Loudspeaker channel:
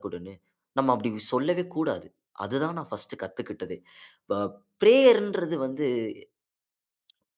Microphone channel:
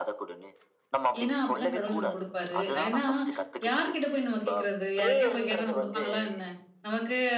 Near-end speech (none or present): present